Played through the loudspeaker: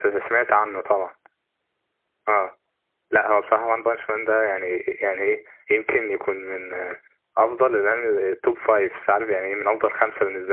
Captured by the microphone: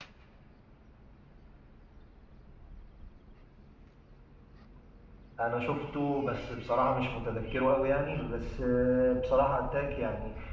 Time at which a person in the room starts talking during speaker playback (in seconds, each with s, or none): 5.4 s